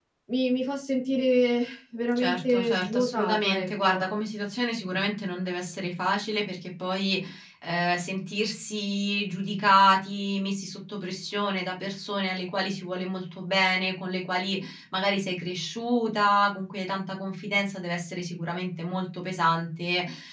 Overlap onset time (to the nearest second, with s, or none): 2 s